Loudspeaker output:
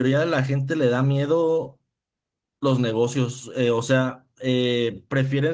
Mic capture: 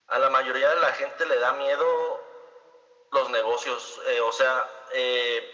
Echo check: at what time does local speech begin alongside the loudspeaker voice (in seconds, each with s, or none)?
none